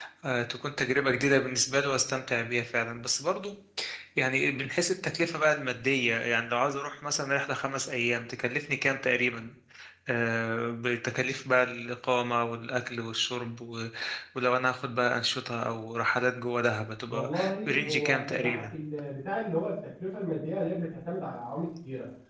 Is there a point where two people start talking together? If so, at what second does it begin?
17 s

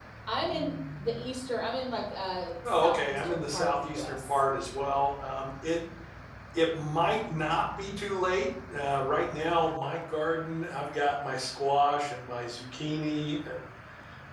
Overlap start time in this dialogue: 3 s

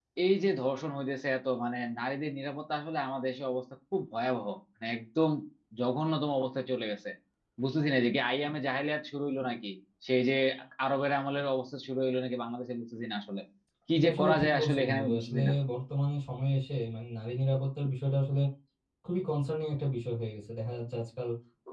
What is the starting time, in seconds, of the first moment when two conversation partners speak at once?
14 s

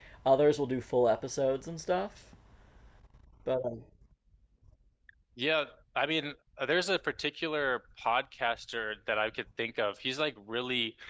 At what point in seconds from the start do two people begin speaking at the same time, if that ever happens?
none

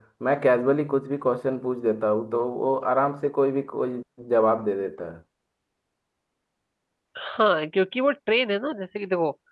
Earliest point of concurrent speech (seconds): none

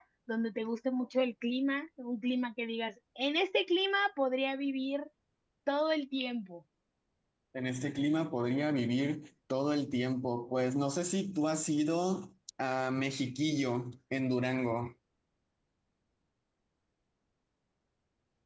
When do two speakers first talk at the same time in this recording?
none

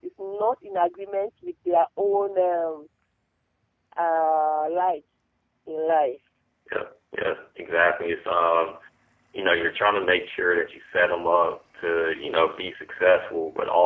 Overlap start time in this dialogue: none

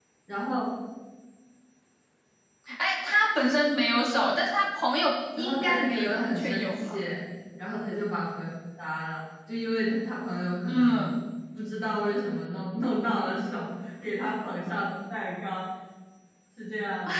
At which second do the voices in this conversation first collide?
5 s

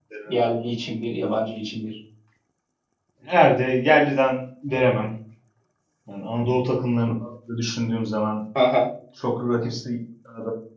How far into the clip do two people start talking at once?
none

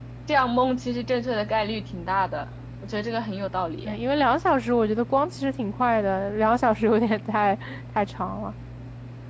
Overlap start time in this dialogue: none

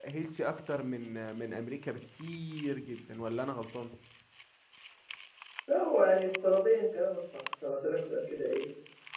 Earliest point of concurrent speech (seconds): none

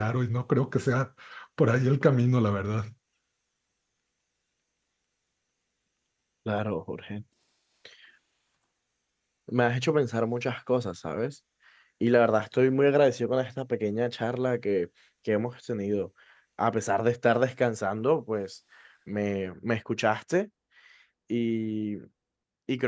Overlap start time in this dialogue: none

